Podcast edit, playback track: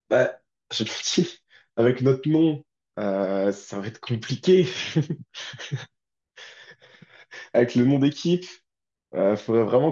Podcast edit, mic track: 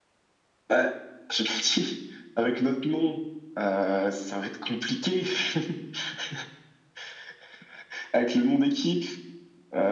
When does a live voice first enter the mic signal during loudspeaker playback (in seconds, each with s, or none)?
none